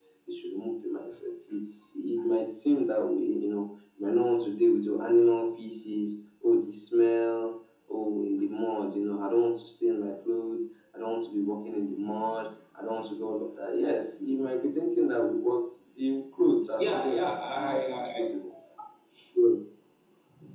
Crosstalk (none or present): present